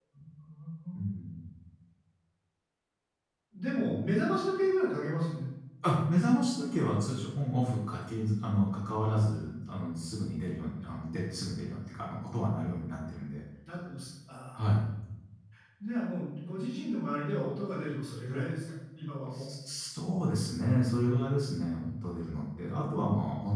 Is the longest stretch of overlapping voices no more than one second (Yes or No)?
Yes